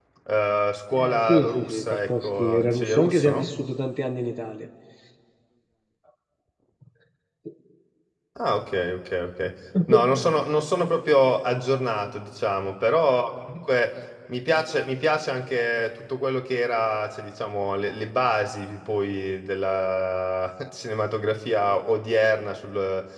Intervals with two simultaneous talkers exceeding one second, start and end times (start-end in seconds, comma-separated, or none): 0.9-3.5